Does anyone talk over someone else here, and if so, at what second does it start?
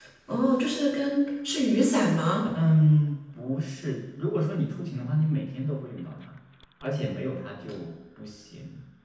none

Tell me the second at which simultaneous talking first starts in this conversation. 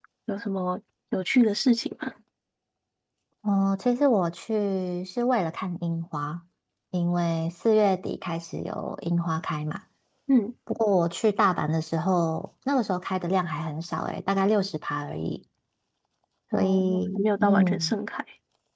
17 s

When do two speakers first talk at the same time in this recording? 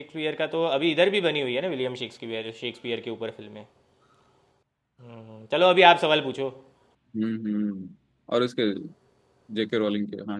none

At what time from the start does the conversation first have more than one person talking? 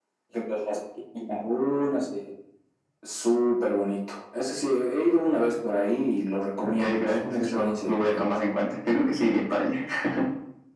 7 s

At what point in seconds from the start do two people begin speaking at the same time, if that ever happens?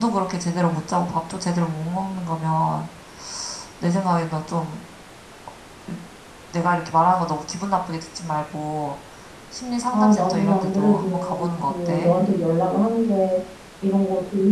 10 s

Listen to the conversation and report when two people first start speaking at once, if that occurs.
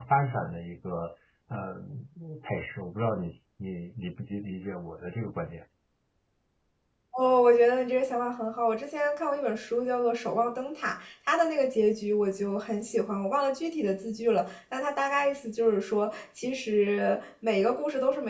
none

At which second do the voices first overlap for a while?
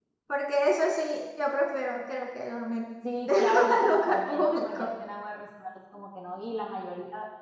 3 s

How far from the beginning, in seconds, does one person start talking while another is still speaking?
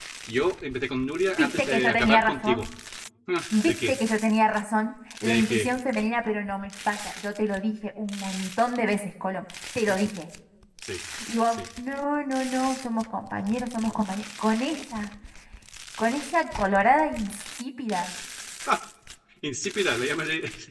1 s

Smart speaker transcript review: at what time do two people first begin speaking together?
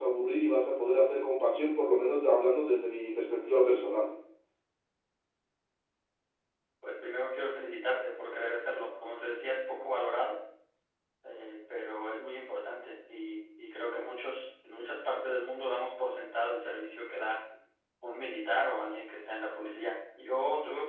none

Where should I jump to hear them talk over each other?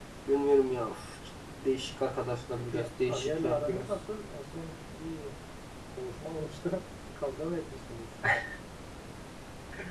3 s

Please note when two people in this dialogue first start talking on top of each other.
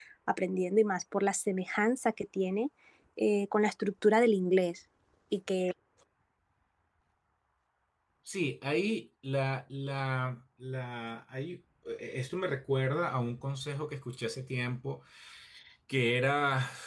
none

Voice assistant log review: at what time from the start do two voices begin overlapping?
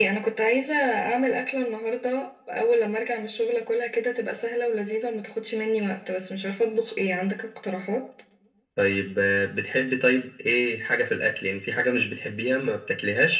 none

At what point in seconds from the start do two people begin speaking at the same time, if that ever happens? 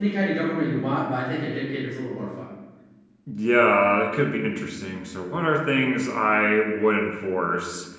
none

